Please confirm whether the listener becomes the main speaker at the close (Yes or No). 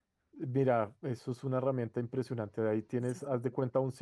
No